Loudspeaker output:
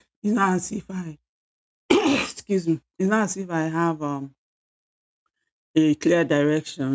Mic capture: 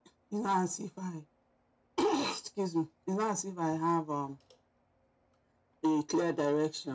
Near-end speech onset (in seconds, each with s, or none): none